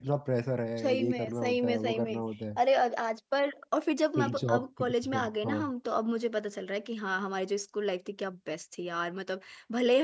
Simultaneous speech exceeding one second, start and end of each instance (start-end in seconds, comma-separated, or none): 0.8-2.2, 4.2-5.6